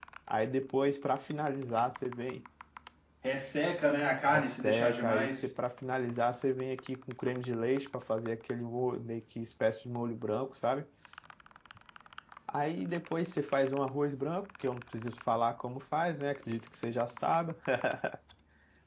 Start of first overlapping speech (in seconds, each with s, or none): 4.2 s